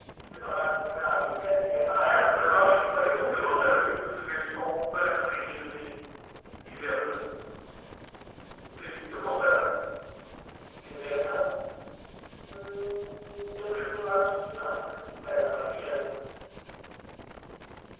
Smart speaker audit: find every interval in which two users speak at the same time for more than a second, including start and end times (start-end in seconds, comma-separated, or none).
2.0-3.7